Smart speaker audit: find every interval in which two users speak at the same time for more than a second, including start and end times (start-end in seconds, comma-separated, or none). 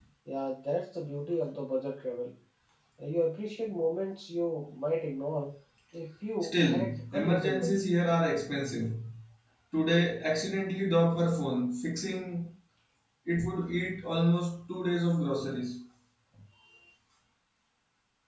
6.5-7.8